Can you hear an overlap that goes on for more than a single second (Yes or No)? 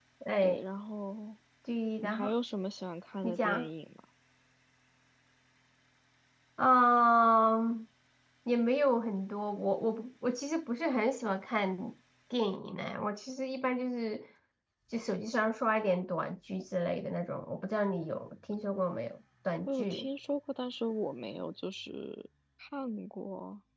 No